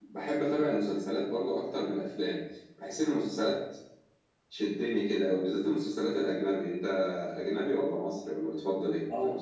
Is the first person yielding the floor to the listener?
Yes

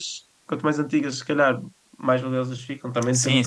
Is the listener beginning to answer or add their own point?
Yes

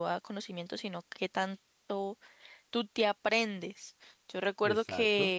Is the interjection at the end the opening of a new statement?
No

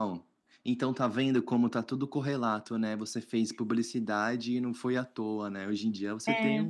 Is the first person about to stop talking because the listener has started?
No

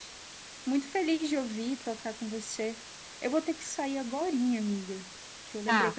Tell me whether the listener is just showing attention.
Yes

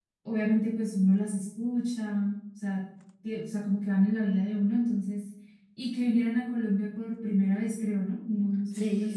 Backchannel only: No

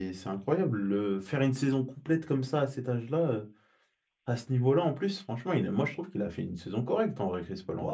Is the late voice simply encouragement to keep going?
No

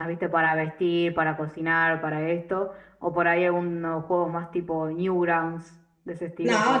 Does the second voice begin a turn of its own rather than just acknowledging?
Yes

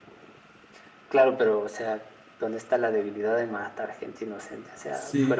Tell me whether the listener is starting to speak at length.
No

